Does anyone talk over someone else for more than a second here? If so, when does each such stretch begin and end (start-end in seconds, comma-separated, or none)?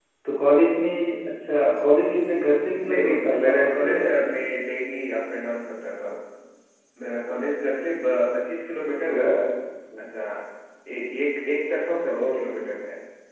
2.9-4.4